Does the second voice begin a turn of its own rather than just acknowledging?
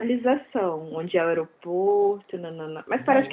Yes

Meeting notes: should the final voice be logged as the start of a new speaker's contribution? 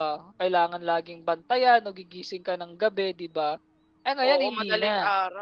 Yes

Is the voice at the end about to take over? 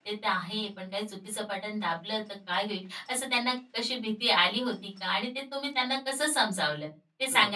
Yes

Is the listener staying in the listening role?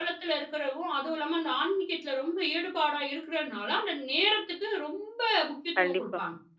No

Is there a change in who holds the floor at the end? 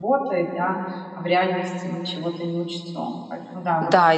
Yes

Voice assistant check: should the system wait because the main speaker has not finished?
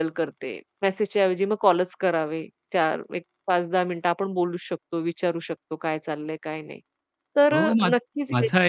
No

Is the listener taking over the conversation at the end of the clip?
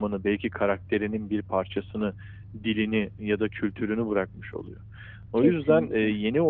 No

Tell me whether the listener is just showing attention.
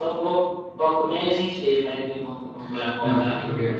No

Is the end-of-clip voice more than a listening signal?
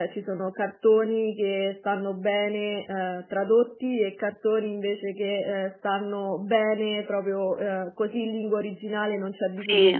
No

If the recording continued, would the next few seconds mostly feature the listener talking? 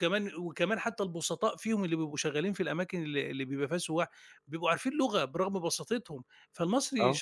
No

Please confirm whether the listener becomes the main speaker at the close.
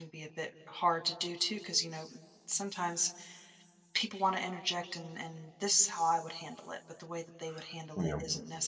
No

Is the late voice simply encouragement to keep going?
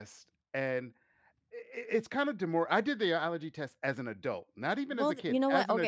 No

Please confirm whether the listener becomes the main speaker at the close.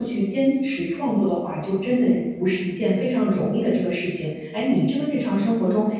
No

